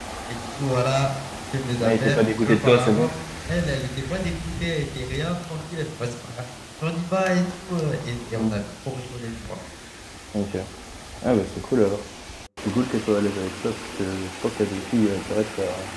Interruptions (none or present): present